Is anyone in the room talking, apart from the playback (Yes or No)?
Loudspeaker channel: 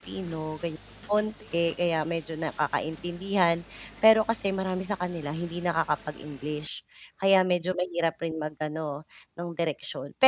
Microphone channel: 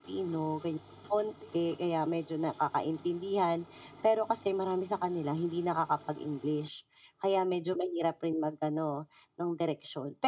No